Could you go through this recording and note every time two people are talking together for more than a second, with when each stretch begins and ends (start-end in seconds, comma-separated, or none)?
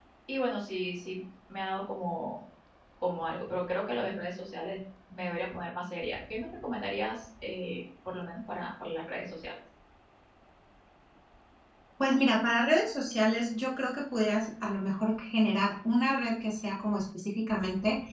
none